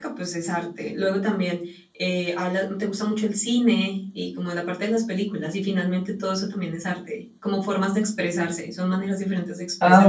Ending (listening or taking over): taking over